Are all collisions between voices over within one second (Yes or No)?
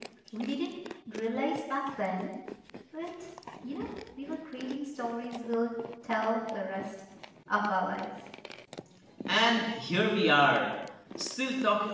Yes